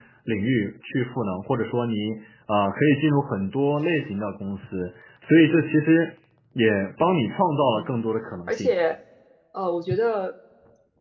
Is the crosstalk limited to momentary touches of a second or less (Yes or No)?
Yes